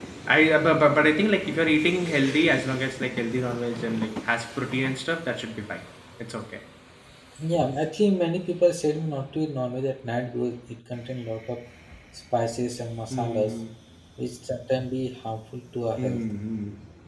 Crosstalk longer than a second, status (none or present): none